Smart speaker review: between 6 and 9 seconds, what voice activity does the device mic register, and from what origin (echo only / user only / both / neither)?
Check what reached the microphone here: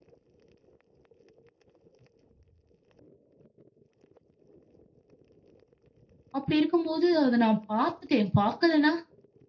user only